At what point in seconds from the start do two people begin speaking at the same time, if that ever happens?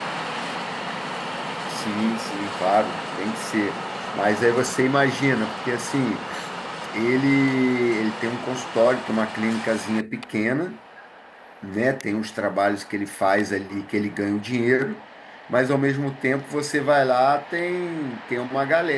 none

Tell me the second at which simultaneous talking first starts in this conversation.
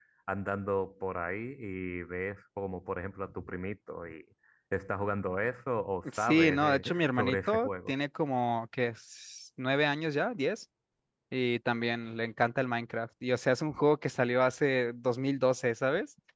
6.0 s

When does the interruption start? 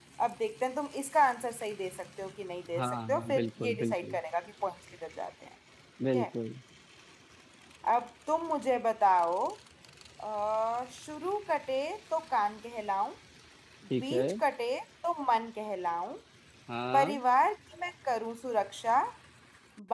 2.8 s

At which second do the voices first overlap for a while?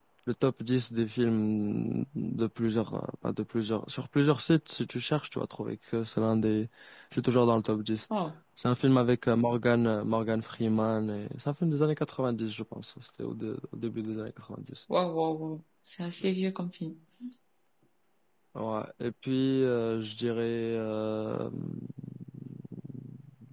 none

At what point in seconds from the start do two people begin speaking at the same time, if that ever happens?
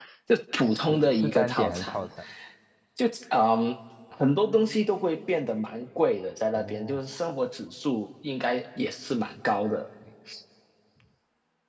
0.6 s

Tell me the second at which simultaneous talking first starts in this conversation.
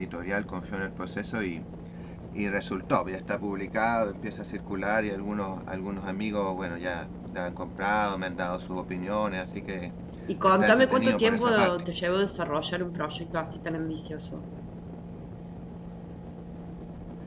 10.4 s

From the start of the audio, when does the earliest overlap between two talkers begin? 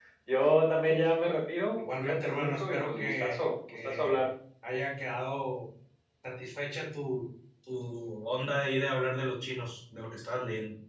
1.8 s

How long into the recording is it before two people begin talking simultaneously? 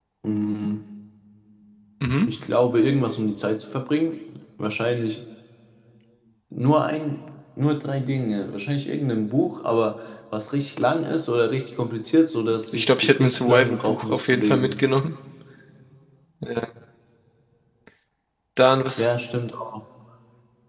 12.7 s

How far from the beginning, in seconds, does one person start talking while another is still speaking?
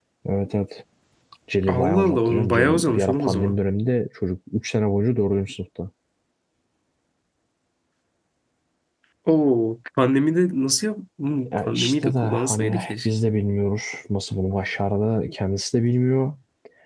1.7 s

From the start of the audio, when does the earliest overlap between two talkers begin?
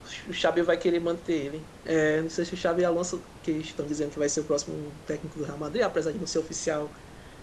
none

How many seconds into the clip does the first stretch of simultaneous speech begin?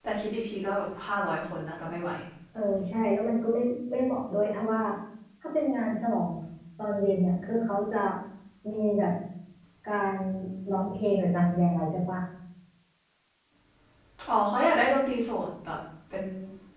none

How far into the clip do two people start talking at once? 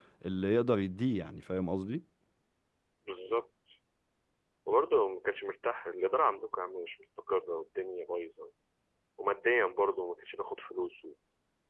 none

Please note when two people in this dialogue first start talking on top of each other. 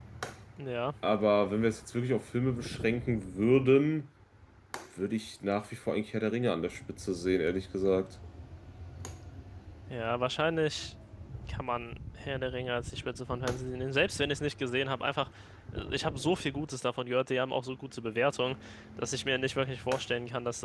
none

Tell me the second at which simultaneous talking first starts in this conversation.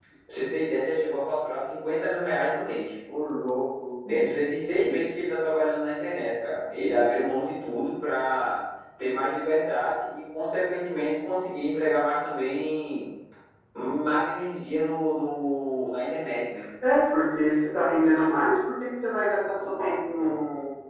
none

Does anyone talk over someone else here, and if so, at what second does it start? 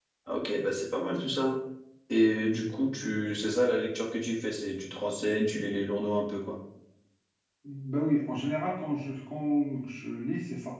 none

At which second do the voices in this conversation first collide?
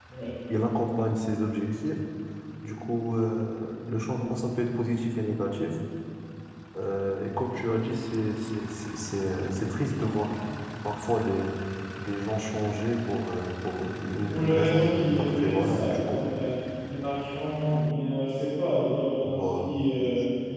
14.3 s

